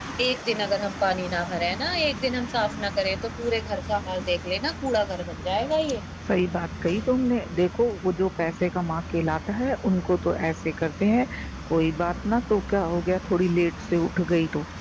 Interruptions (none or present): none